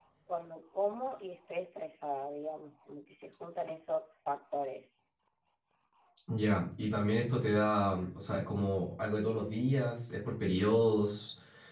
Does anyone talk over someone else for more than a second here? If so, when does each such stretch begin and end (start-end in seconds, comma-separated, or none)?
none